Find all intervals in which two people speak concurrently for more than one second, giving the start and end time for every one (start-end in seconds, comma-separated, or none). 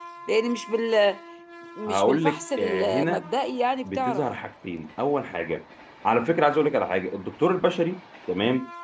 1.9-3.3